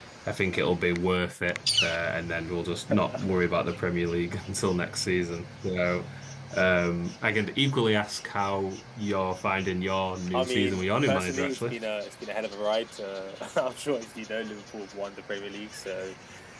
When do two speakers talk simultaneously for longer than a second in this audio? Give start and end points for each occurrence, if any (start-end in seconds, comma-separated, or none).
10.3-11.7